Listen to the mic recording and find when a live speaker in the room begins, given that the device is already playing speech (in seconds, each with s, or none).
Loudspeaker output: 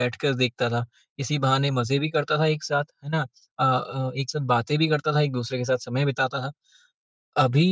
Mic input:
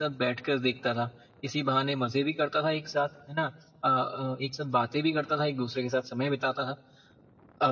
none